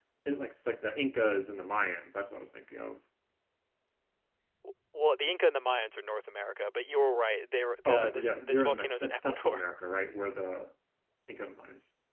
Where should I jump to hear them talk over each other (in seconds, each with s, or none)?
7.8 s